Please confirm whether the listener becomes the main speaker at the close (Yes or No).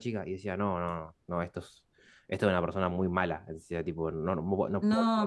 Yes